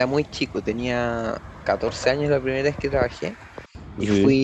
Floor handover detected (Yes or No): No